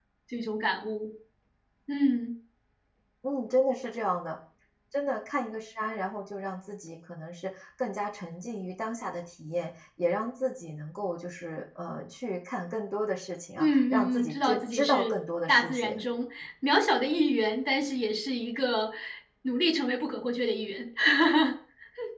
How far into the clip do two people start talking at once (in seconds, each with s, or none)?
13.6 s